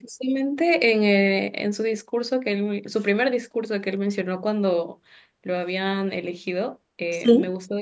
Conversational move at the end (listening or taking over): listening